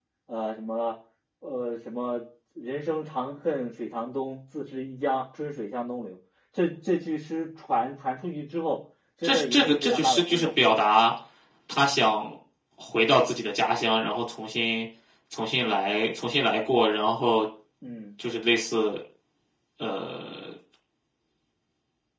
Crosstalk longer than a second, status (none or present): present